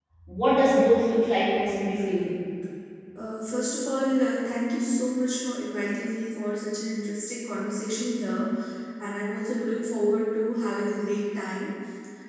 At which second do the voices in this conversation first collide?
none

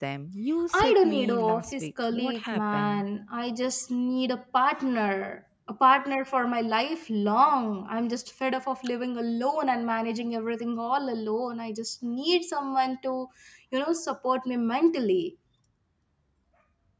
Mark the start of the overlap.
0.7 s

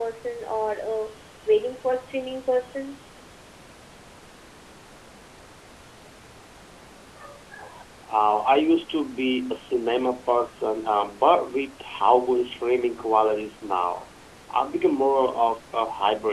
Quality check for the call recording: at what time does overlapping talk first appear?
none

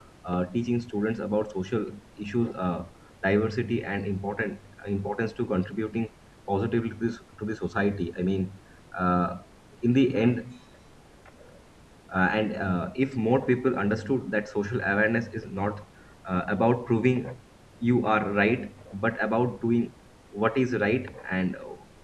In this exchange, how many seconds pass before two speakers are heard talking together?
none

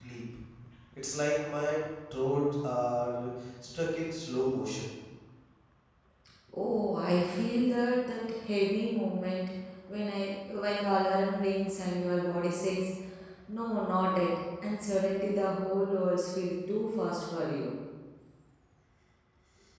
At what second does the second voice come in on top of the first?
none

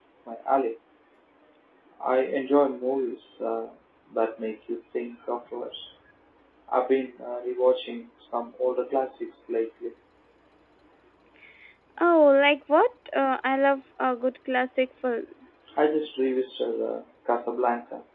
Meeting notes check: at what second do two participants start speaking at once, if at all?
none

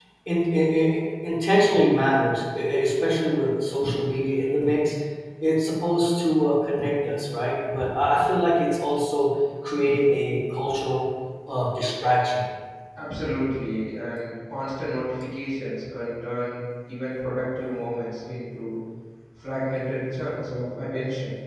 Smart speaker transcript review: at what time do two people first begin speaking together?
none

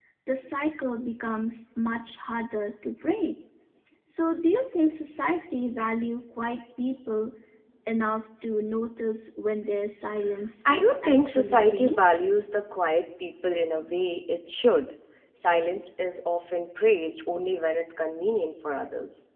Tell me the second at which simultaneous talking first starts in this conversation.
10.7 s

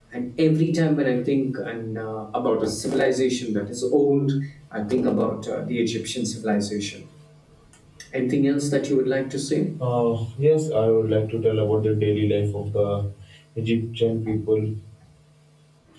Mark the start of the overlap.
none

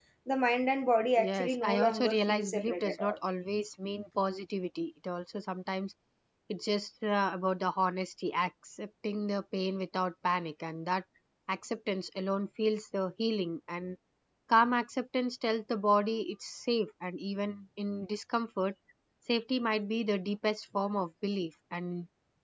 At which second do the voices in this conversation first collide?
1.2 s

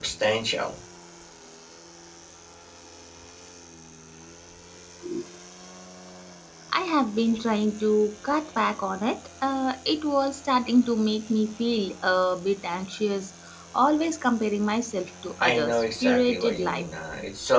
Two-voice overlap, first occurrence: 15.4 s

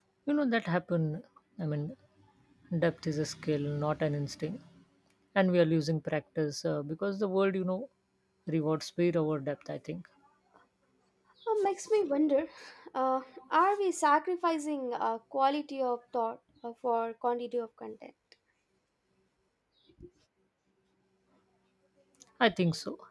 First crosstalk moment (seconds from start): none

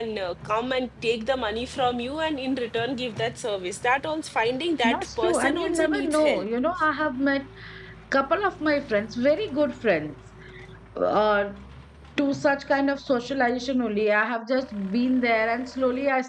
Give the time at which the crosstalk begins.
4.8 s

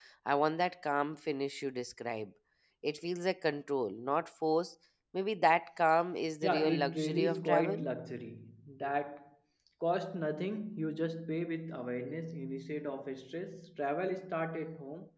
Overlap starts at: 6.4 s

